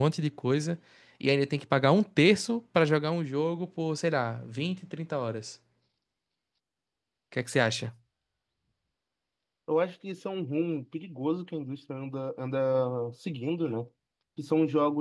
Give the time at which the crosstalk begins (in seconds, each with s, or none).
none